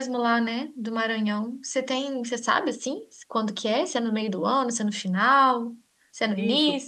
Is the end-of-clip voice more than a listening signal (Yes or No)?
Yes